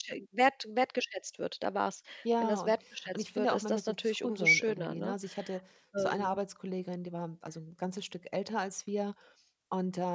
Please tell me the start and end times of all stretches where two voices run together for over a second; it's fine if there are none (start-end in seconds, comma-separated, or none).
3.2-5.1